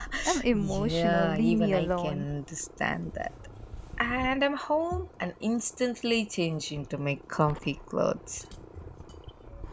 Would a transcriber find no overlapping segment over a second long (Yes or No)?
No